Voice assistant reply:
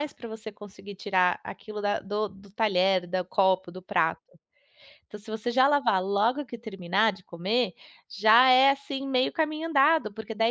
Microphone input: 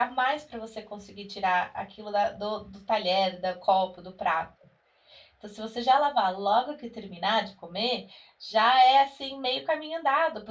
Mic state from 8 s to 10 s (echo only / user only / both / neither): echo only